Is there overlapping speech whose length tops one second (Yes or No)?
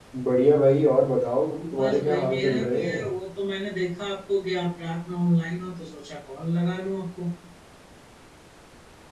Yes